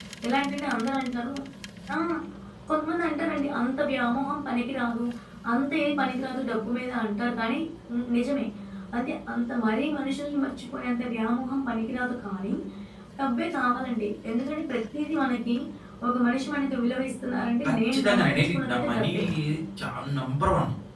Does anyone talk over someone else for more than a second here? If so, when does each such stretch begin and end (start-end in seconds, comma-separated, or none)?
17.6-19.1